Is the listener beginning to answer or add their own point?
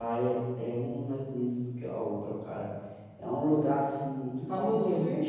No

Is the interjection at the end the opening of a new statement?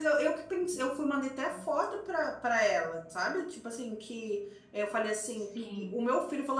No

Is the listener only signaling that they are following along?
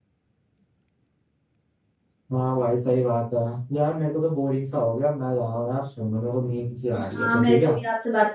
No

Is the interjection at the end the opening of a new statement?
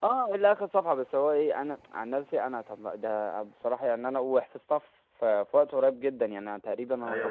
Yes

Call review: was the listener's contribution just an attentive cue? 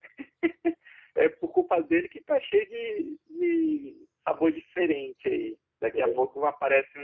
Yes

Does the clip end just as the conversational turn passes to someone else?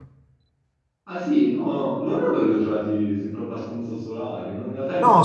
Yes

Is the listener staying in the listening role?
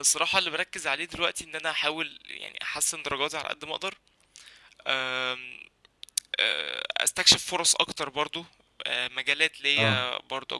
Yes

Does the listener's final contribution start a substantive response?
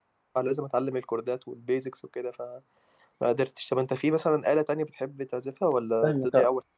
Yes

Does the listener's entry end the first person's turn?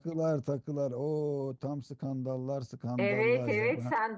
Yes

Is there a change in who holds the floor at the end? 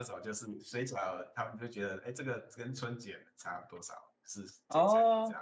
Yes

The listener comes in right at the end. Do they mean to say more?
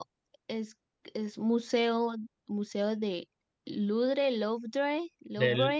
Yes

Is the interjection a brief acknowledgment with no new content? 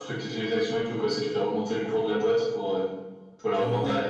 No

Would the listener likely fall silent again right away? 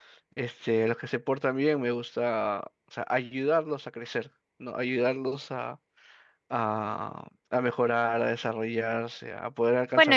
No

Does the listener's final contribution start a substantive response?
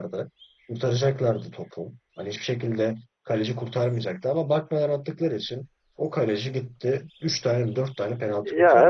Yes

